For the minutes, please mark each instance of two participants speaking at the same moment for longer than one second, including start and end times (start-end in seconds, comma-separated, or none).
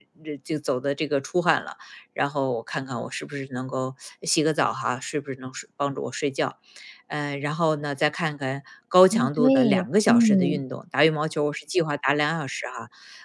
9.1-10.6